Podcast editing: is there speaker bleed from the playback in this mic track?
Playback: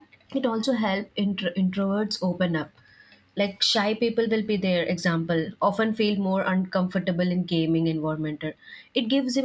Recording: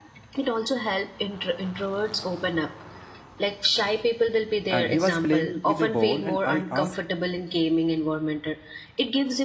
Yes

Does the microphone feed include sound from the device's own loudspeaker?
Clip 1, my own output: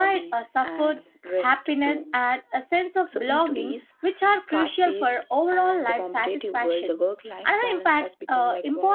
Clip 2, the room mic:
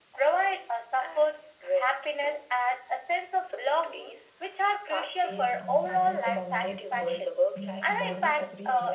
Yes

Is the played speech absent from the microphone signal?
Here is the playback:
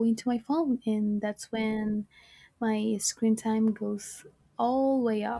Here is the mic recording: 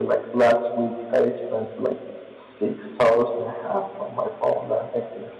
Yes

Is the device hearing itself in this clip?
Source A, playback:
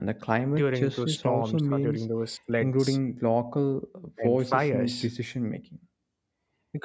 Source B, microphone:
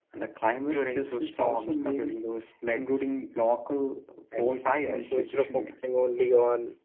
Yes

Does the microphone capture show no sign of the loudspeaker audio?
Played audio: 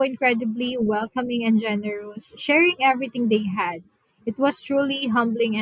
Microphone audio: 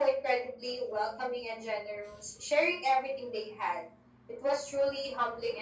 No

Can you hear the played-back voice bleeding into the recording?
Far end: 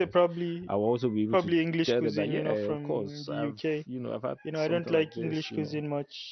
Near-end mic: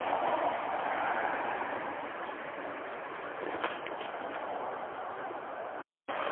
No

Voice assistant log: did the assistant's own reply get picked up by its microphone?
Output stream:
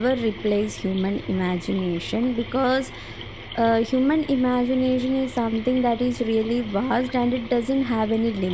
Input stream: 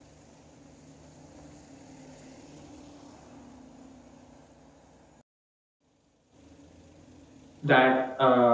No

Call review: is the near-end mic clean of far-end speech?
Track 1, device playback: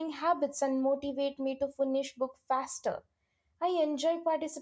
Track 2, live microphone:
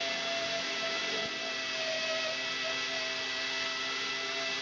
Yes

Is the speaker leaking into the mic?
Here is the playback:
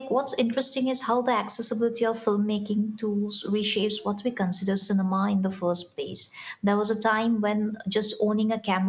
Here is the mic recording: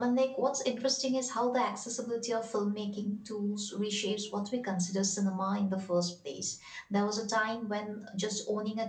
Yes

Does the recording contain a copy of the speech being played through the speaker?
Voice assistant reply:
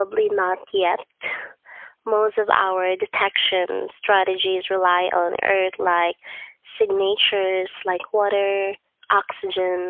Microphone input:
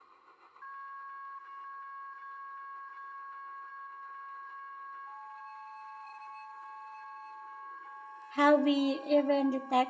No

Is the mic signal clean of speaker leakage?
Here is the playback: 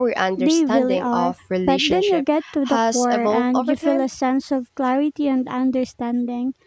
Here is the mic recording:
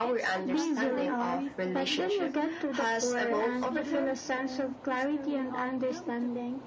No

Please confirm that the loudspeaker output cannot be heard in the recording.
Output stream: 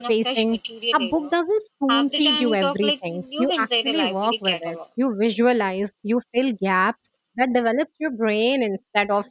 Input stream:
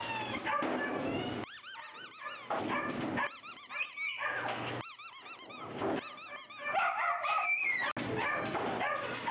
Yes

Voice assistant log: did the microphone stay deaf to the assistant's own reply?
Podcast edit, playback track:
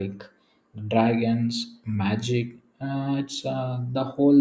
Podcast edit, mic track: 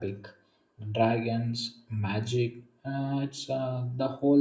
No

